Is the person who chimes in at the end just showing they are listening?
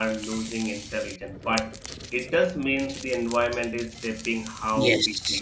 No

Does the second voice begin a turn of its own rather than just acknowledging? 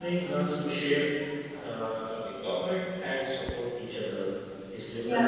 Yes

